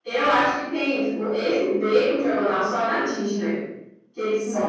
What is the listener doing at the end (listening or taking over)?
taking over